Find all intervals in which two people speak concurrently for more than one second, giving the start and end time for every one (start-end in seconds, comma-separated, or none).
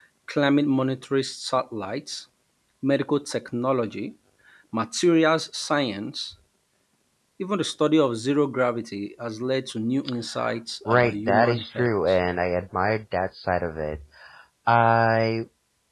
10.9-12.2